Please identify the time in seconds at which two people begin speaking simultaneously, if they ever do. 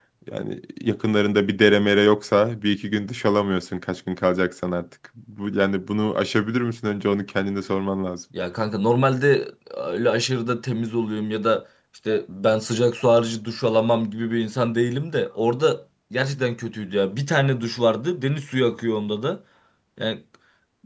none

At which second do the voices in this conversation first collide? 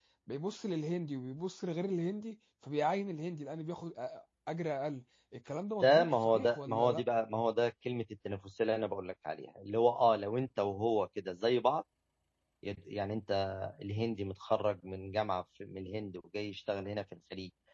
5.8 s

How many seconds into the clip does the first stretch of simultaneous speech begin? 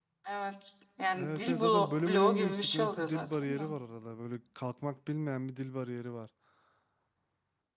1.2 s

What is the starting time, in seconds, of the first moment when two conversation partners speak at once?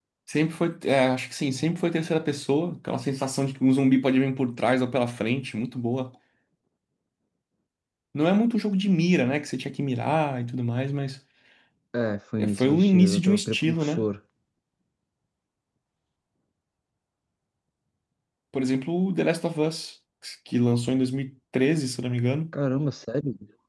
12.4 s

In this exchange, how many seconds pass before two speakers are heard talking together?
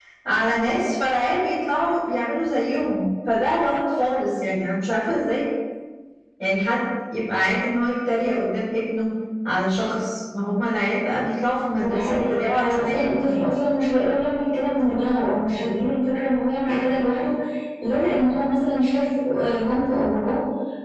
11.8 s

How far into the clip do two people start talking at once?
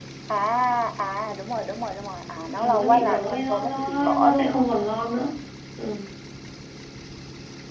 2.6 s

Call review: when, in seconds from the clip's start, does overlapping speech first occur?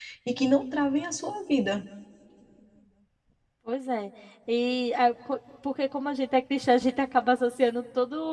none

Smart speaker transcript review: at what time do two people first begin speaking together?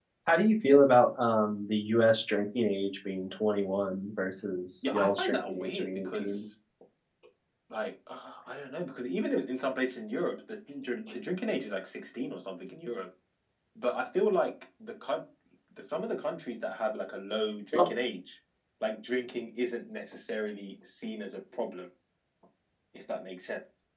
4.8 s

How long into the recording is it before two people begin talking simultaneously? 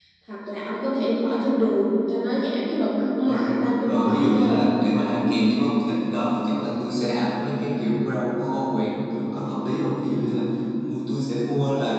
3.3 s

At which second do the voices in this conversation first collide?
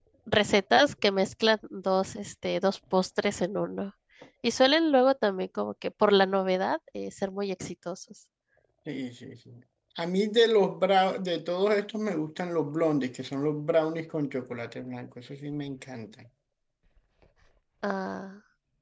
none

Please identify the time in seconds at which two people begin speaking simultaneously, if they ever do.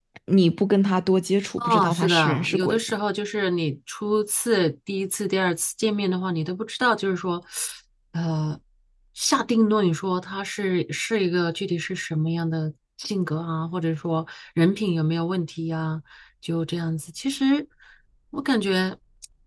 1.6 s

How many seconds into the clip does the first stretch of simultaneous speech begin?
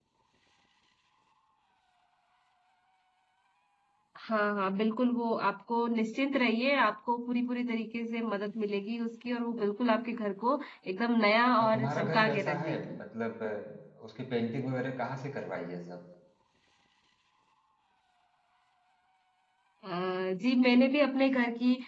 11.6 s

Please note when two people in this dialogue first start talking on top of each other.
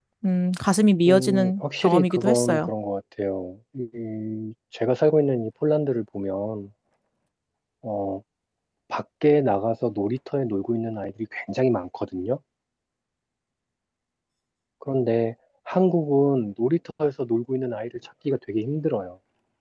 1.1 s

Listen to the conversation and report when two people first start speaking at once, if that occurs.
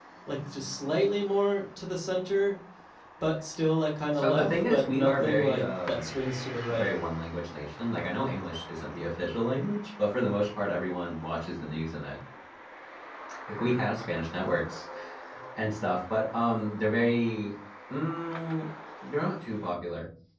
4.1 s

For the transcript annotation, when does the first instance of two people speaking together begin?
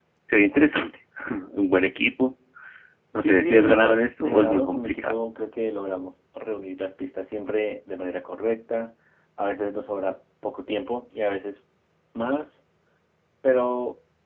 3.2 s

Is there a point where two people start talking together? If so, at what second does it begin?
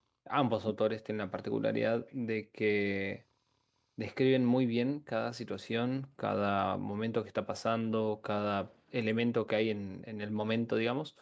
none

